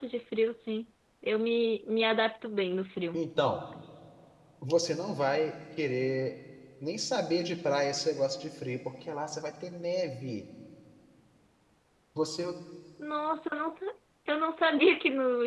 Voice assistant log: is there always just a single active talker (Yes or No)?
Yes